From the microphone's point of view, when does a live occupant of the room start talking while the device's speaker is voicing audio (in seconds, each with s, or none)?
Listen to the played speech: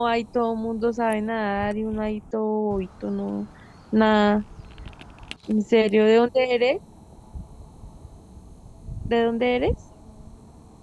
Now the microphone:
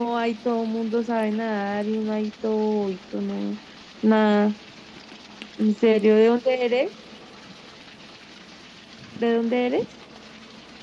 none